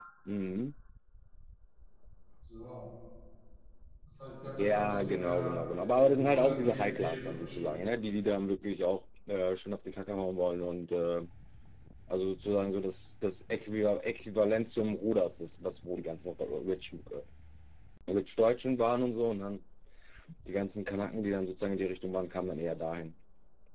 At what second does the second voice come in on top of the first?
5 s

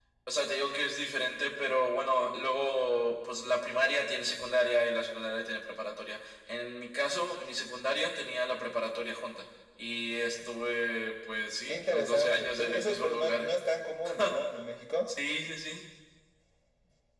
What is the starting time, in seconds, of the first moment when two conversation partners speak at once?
12 s

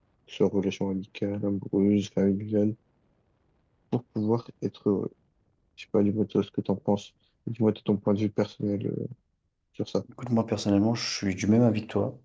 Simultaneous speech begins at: none

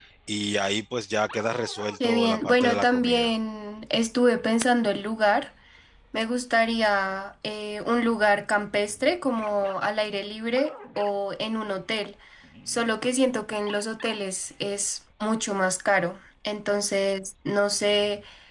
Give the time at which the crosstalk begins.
2 s

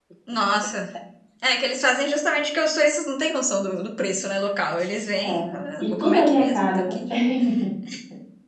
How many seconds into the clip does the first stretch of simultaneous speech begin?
5 s

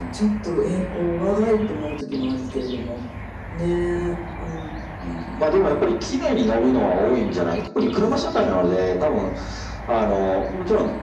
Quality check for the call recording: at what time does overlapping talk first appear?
none

